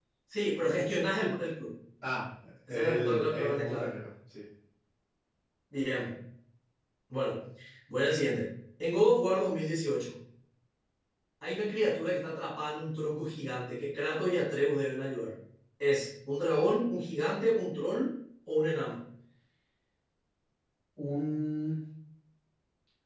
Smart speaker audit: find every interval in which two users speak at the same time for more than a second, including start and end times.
2.7-3.9

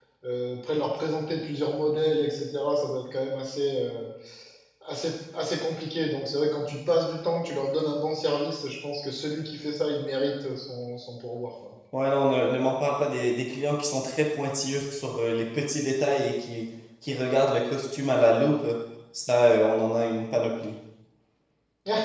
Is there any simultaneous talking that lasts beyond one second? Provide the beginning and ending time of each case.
none

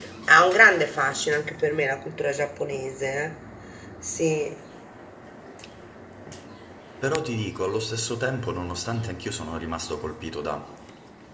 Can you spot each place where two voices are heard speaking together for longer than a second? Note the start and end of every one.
none

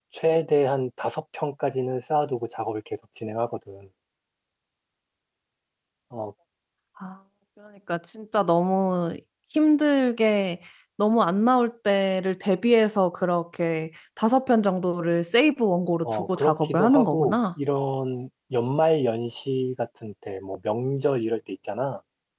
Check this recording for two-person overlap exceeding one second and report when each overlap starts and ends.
16.0-17.4

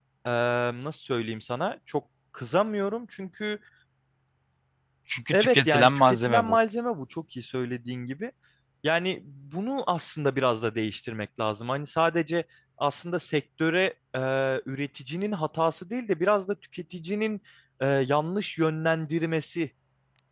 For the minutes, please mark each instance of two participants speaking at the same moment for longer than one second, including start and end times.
5.3-6.6

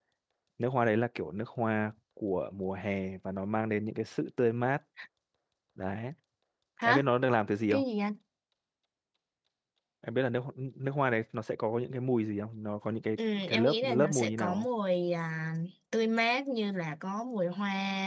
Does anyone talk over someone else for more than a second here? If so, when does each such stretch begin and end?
13.3-14.7

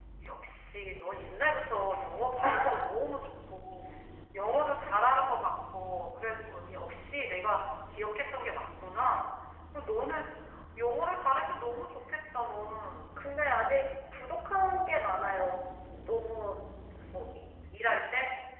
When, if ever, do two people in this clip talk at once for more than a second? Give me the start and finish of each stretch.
none

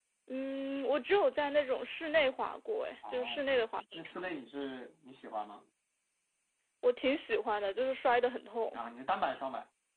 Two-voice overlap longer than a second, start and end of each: none

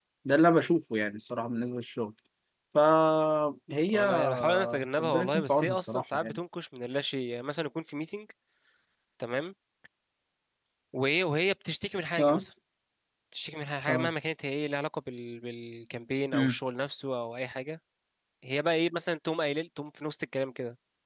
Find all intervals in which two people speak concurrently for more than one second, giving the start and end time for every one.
3.9-6.4

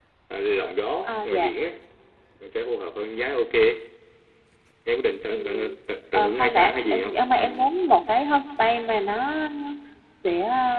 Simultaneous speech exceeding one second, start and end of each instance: 6.1-7.7

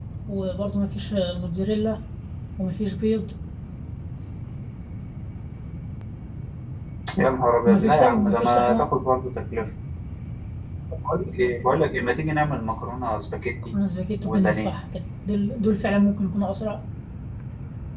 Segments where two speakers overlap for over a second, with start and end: 7.7-9.0

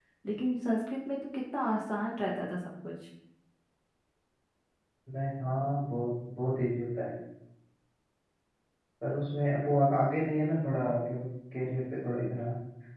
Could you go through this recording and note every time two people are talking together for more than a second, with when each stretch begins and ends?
none

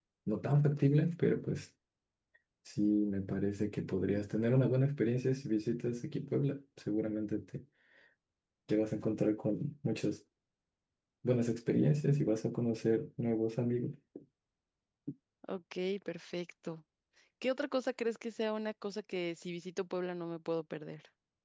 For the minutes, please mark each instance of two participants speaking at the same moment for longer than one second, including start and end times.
none

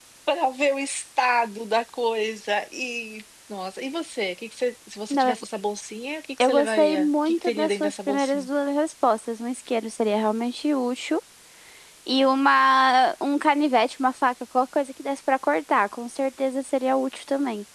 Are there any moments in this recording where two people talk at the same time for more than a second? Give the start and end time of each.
6.4-8.5

